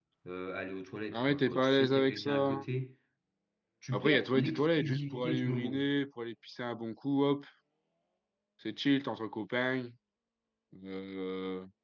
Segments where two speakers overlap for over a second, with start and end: 1.1-2.6, 3.9-5.9

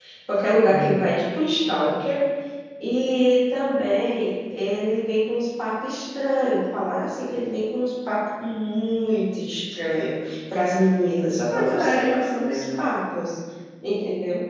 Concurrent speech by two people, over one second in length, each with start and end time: 11.5-12.9

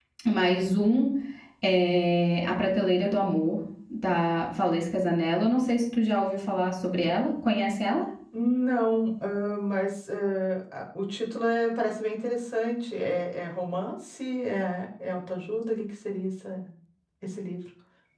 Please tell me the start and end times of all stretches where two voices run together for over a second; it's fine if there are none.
none

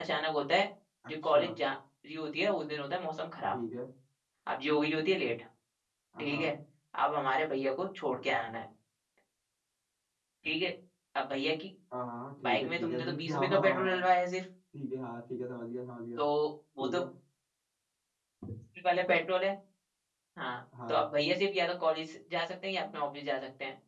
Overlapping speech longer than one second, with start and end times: 12.5-14.0

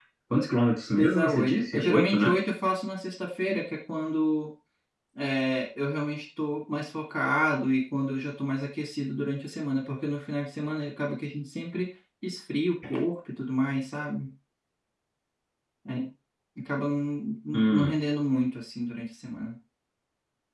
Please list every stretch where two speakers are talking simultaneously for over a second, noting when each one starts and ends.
1.0-2.4

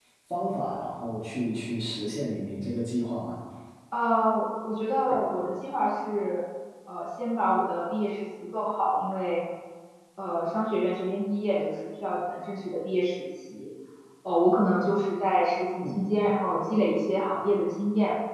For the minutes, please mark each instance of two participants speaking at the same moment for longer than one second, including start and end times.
none

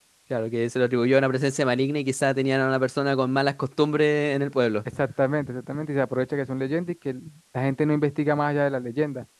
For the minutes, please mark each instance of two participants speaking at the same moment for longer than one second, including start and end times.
none

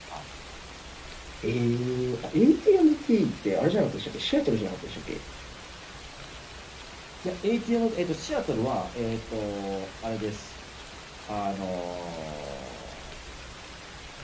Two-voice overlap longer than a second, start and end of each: none

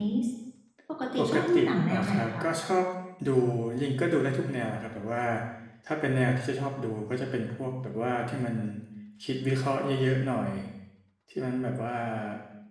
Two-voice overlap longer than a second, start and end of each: 1.2-2.4

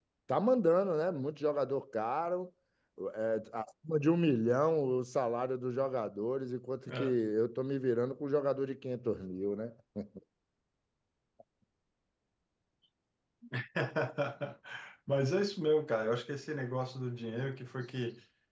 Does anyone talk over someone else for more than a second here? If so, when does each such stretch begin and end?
none

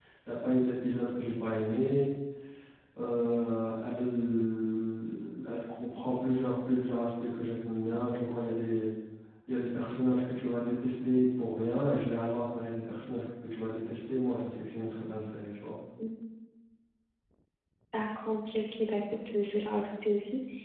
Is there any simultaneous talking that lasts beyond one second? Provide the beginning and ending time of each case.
none

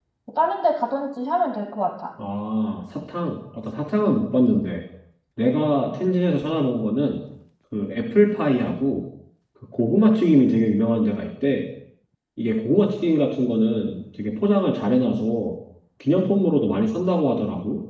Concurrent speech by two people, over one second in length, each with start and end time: none

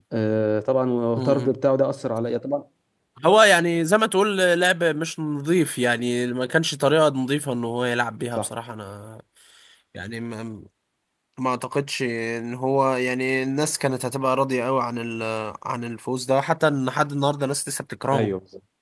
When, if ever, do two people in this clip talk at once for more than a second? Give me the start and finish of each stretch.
none

